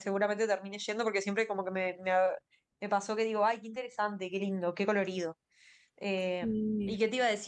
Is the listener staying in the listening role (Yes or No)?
Yes